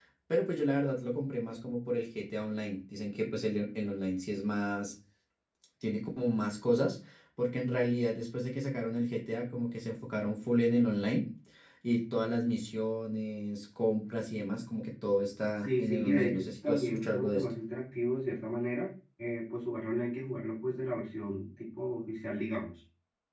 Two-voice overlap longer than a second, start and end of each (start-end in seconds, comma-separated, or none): 15.6-17.4